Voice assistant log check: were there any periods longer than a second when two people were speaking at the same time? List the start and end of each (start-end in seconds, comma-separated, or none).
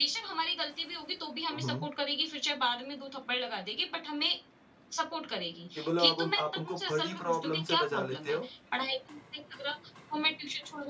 5.8-8.5